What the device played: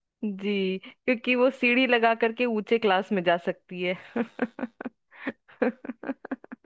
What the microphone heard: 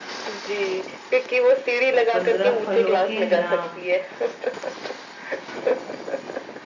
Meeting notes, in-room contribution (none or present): present